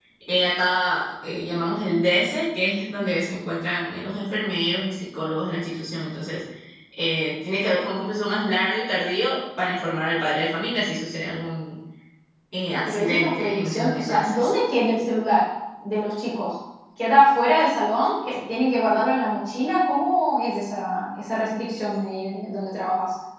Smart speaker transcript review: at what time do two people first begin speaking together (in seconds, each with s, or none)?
12.8 s